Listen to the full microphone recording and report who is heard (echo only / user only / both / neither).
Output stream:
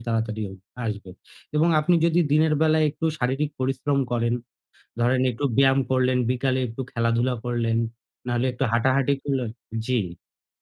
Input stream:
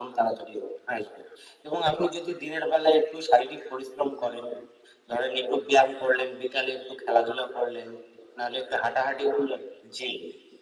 echo only